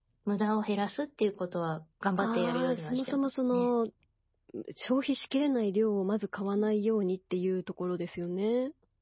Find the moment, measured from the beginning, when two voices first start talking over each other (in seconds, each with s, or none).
2.2 s